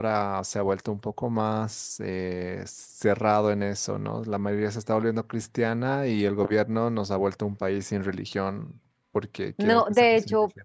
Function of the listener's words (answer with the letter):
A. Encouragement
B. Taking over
B